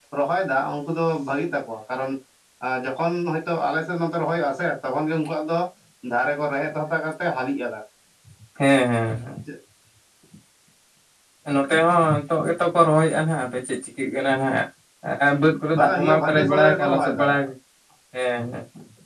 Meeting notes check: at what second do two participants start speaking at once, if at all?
15.7 s

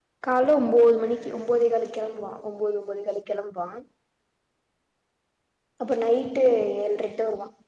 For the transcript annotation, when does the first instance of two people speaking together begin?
none

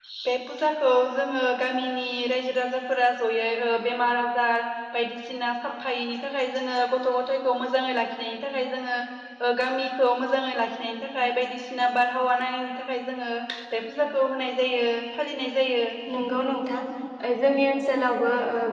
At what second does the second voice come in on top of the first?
none

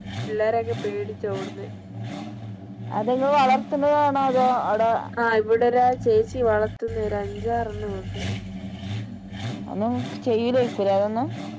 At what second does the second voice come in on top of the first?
none

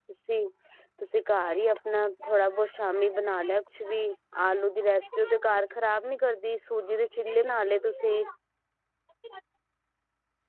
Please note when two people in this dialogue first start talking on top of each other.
none

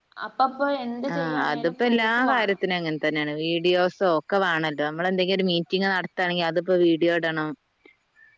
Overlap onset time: 1.1 s

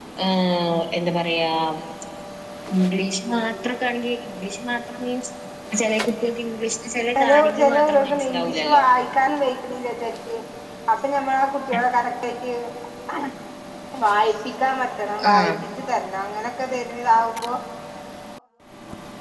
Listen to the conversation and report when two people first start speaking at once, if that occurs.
7.2 s

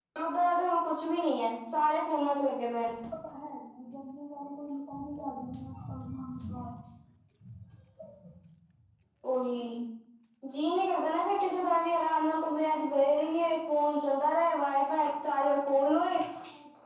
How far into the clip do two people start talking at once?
none

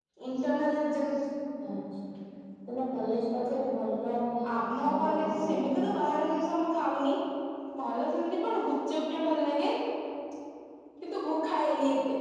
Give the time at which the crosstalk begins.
4.4 s

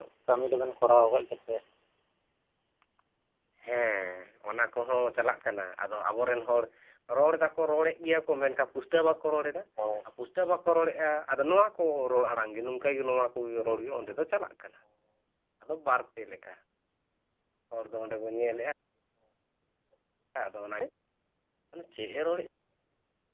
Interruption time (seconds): none

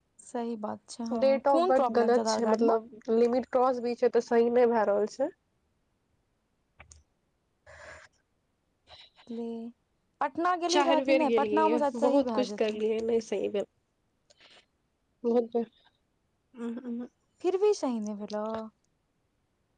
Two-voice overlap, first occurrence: 1.2 s

